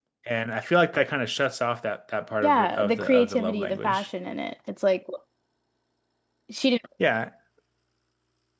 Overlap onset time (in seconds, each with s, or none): 2.4 s